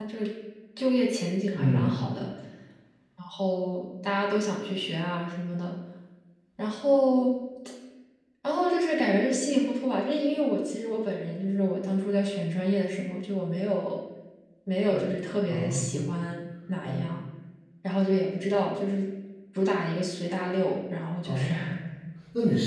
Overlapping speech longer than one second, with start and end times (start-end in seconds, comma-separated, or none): none